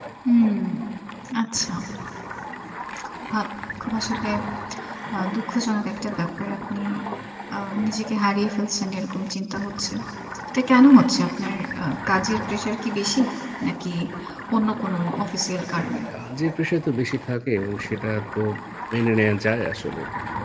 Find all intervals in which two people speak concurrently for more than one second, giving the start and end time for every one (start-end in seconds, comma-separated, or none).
none